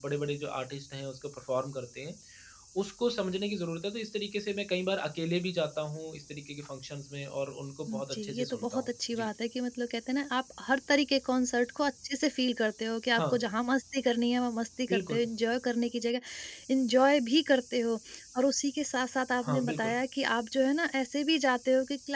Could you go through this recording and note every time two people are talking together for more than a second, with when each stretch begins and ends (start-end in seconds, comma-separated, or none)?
7.9-9.3